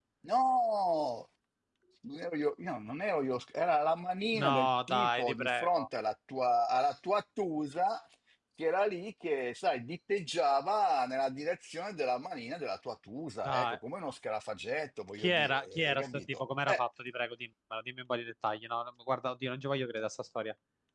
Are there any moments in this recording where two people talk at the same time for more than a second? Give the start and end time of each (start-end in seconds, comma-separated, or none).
4.3-5.9, 15.2-16.8